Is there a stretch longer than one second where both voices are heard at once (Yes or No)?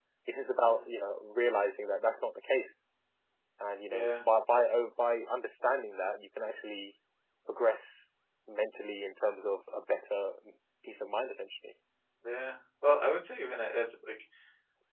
No